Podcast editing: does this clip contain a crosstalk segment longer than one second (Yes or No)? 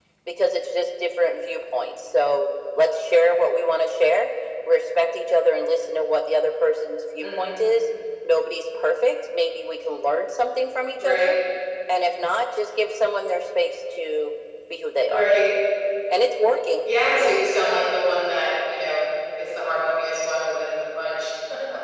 No